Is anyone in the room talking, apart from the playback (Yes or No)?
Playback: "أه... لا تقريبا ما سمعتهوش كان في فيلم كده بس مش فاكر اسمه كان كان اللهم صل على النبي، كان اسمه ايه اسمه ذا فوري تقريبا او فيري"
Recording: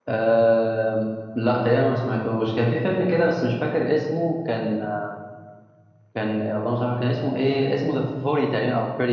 No